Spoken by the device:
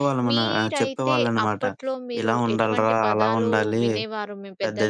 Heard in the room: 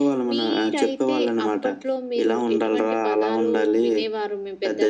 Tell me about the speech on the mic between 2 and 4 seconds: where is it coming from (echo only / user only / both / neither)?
echo only